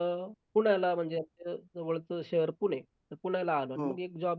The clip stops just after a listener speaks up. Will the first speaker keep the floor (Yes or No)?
Yes